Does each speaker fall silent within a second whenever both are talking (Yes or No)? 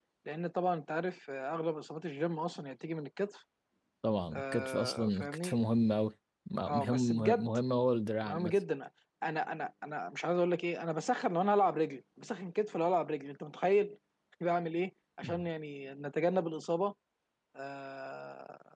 No